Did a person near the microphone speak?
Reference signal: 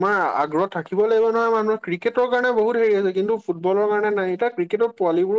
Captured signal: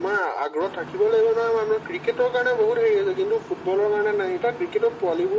No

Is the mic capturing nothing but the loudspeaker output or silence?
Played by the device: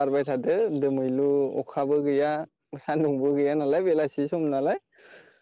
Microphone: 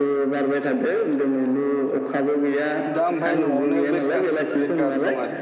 No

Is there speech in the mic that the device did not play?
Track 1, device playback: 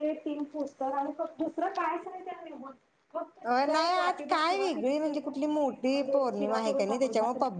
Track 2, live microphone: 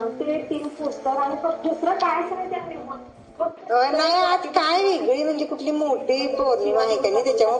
No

